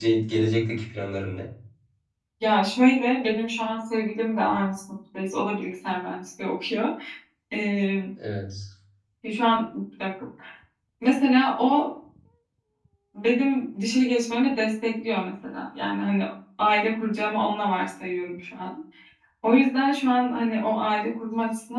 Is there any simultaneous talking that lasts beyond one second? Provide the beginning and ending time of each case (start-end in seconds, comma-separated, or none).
none